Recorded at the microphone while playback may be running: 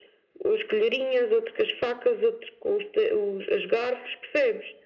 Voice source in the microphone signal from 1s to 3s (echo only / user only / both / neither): echo only